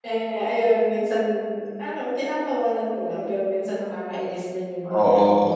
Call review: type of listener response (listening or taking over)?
taking over